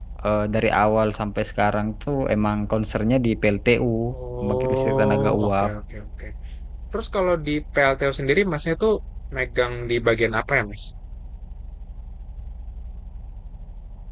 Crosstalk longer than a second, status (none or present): present